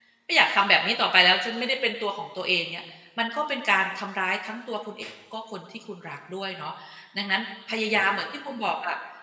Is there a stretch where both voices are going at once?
No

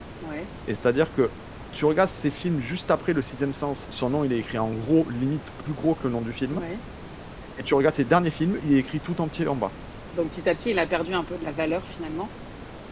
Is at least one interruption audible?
No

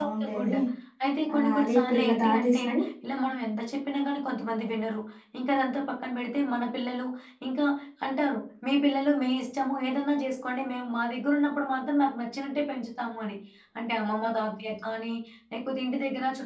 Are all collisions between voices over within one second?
No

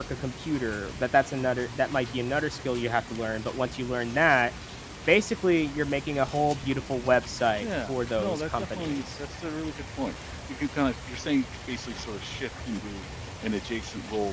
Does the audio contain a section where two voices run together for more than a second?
Yes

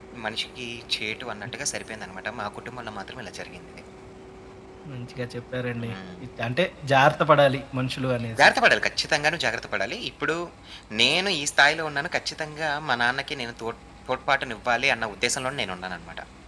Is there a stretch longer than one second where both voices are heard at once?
No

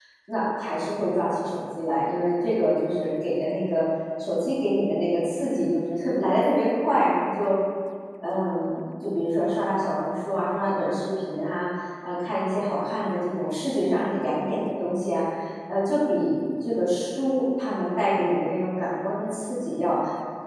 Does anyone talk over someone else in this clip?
No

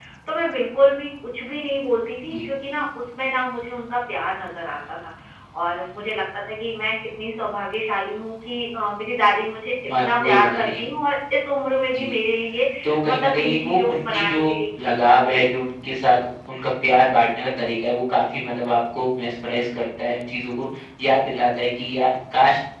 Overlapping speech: Yes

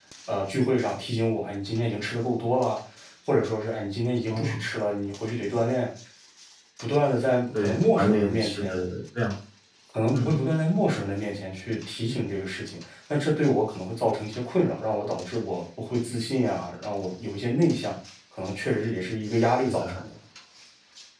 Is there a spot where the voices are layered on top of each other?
Yes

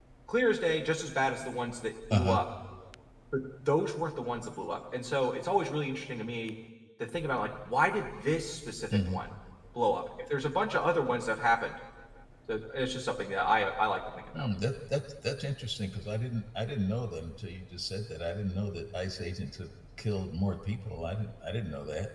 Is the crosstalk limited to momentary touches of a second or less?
Yes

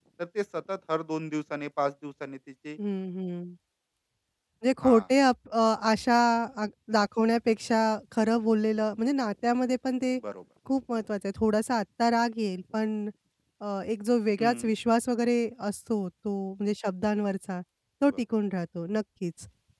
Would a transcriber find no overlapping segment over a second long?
Yes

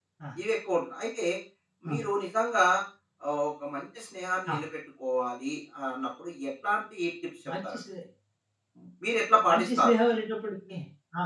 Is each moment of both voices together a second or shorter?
Yes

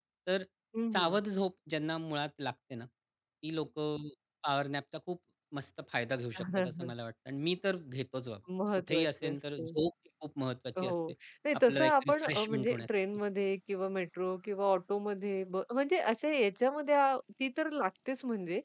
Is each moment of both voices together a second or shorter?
No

